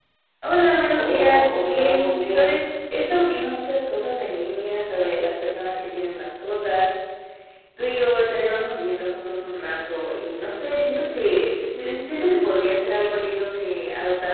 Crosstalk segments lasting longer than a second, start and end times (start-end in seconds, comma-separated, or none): 1.0-2.6